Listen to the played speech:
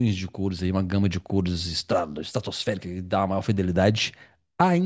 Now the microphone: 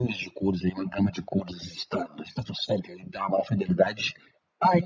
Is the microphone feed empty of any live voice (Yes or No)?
Yes